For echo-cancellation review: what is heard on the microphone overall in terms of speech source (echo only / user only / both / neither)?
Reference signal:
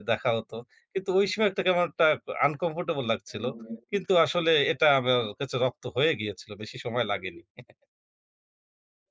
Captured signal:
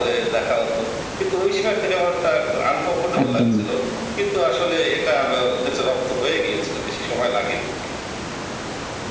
both